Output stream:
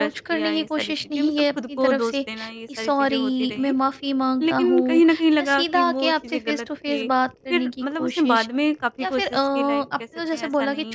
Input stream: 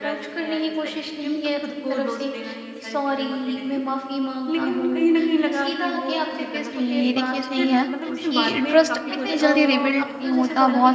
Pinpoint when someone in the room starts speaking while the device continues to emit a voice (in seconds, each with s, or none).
6.7 s